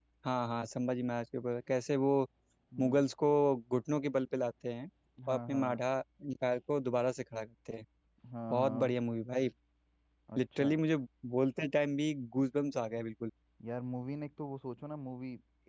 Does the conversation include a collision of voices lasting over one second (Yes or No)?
No